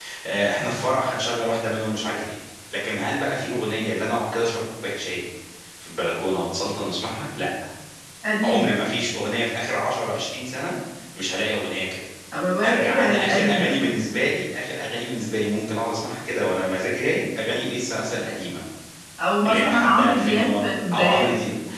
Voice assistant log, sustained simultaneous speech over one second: present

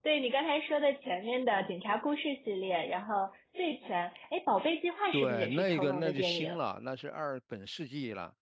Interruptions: present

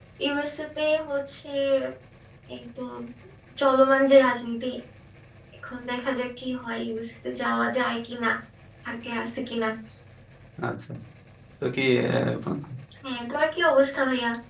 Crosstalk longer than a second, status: none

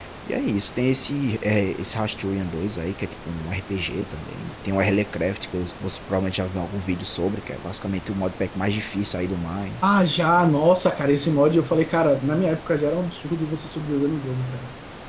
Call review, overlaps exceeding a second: none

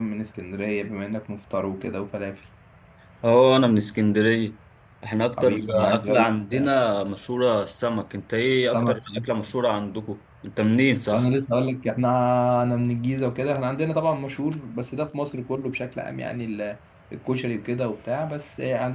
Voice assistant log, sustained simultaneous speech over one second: present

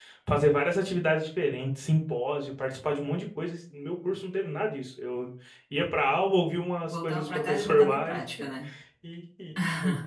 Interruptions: present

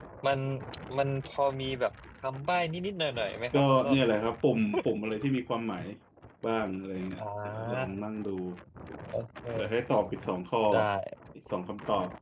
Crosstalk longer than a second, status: none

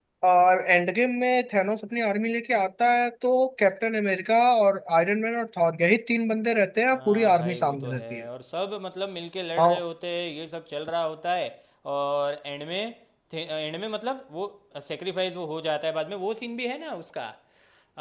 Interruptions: present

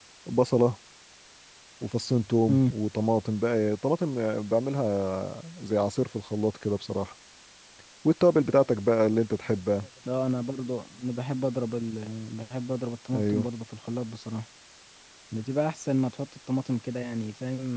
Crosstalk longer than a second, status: none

